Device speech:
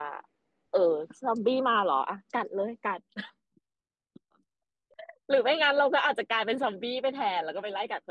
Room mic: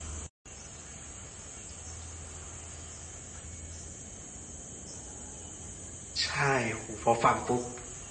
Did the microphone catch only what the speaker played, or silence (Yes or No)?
No